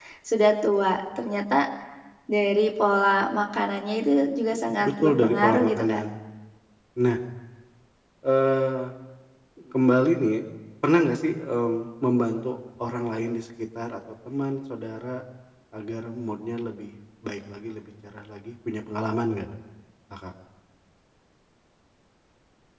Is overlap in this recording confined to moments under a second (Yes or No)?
No